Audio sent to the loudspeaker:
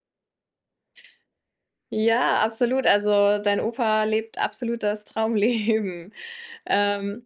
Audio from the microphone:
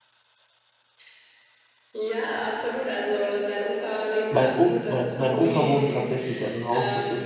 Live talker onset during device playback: 4.3 s

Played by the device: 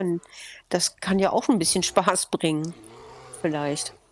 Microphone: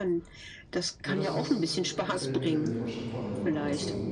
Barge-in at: 1.0 s

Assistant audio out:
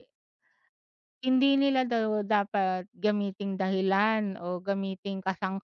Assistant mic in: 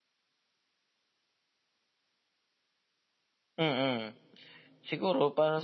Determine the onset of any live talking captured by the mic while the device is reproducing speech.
3.6 s

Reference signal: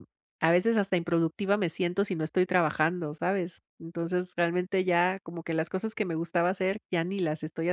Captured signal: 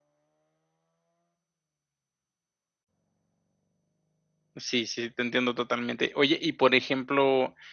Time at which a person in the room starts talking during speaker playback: 4.6 s

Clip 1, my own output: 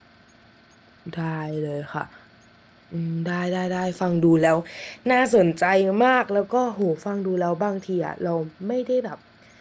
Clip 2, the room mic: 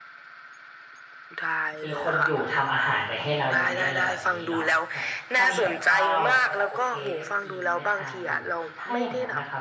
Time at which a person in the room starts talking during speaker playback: 1.8 s

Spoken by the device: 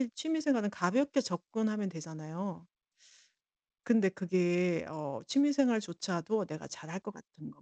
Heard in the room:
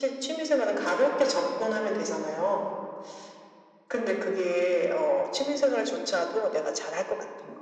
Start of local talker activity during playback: none

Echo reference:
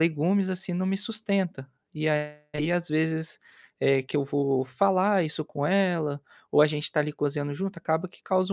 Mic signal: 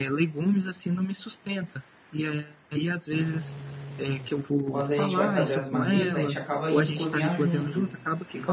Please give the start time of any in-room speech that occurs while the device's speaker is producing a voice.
4.7 s

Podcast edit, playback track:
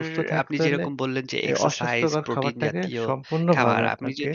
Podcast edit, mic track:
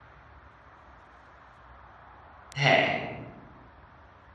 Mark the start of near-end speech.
2.6 s

